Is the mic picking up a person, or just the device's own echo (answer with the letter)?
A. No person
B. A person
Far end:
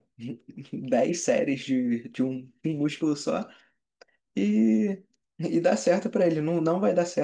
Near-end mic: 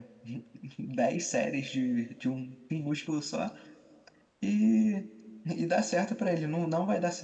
A